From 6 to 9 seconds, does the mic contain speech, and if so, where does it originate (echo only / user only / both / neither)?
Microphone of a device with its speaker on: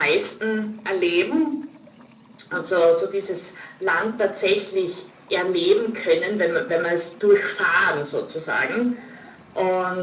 echo only